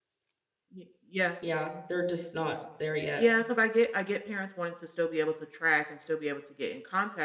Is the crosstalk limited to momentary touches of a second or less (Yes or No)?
Yes